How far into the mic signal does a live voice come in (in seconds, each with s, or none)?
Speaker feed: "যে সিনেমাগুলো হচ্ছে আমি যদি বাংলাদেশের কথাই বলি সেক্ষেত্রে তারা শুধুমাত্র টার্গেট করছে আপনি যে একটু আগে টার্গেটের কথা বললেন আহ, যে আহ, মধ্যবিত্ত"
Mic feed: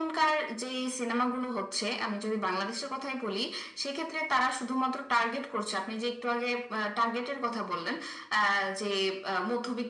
none